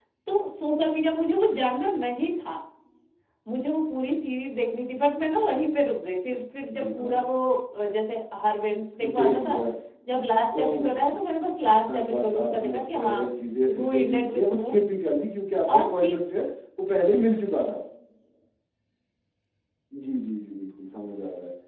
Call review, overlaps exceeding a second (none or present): present